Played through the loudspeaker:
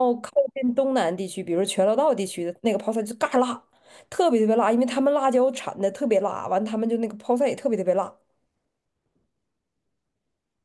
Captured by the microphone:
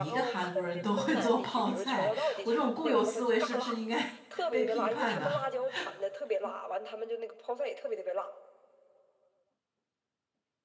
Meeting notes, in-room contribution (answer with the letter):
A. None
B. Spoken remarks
B